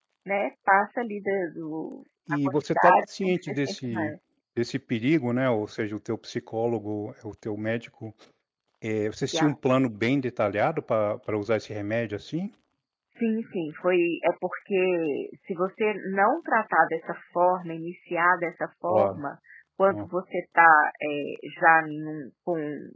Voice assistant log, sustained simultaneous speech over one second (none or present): present